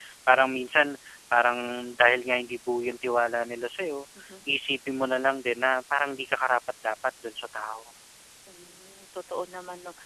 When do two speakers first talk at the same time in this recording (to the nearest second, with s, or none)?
none